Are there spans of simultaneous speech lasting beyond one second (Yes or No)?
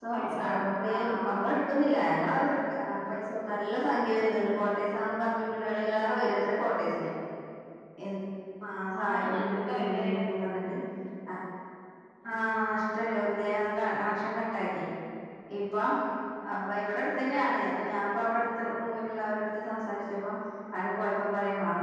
Yes